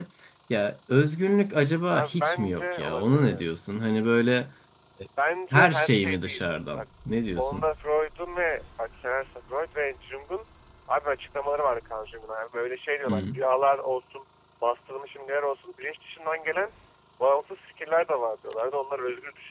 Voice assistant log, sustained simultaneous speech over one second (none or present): present